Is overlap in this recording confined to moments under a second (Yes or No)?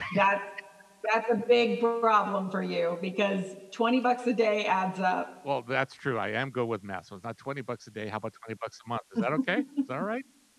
Yes